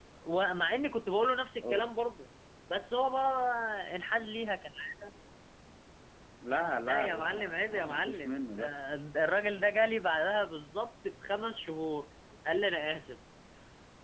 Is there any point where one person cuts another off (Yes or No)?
Yes